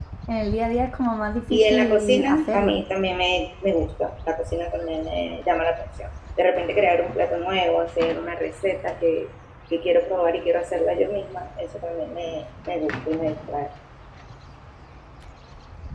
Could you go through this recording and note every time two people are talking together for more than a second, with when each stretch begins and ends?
1.5-2.8

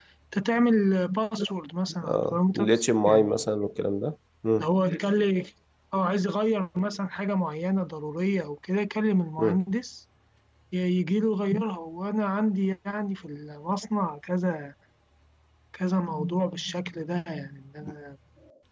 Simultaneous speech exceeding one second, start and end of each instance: 2.0-3.5

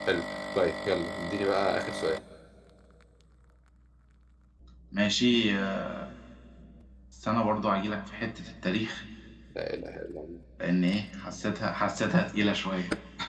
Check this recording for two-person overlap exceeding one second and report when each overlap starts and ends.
none

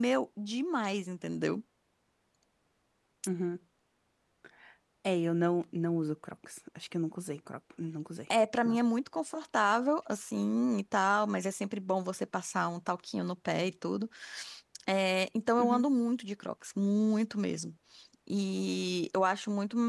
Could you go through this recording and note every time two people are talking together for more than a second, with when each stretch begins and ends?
none

